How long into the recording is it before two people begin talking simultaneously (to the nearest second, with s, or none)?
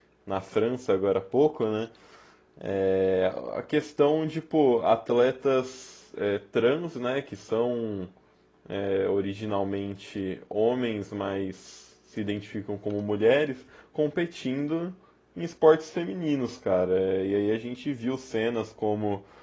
none